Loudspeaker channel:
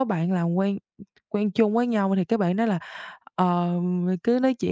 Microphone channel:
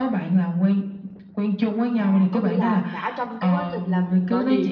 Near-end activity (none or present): present